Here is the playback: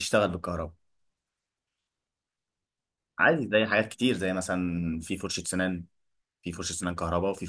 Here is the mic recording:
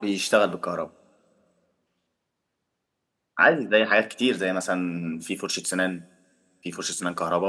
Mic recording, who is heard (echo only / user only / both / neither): echo only